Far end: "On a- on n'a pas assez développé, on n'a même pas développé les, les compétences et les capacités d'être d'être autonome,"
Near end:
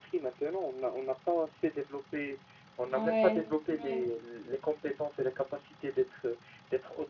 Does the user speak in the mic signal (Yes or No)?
Yes